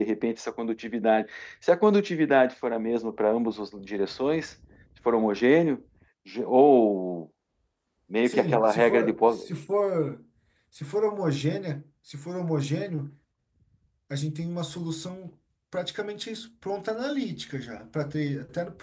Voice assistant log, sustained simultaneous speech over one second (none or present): present